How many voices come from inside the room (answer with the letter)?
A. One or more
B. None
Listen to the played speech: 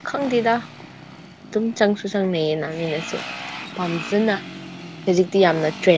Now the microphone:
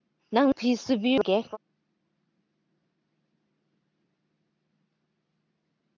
A